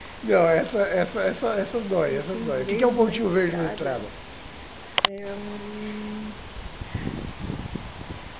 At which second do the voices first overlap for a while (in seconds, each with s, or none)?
2.1 s